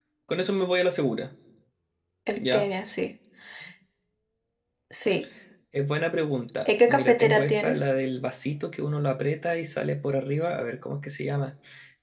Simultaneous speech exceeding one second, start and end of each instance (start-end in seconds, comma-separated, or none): 6.7-7.8